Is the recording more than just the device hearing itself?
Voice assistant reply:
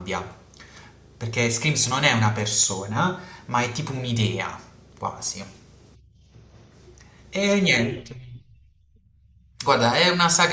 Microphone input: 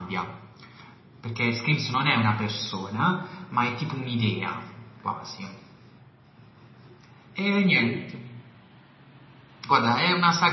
No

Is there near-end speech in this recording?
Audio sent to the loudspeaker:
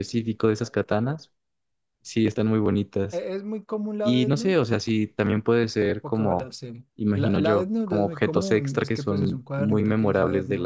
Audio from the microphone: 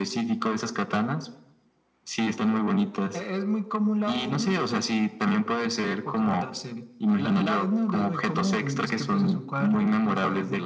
No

